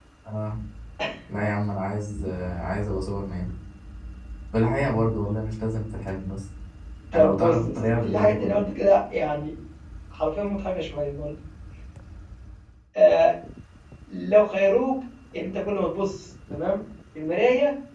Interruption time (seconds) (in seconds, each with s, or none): 7.1 s